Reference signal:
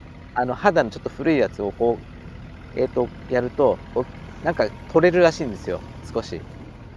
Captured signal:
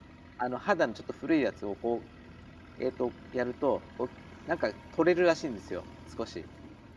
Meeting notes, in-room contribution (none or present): none